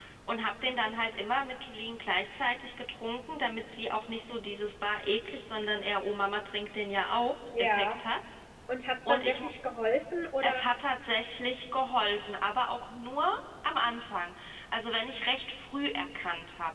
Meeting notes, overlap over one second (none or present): none